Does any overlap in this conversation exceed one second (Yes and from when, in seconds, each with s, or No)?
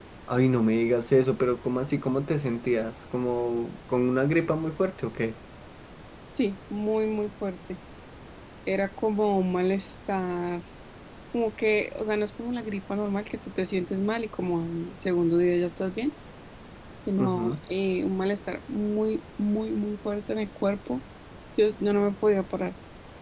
No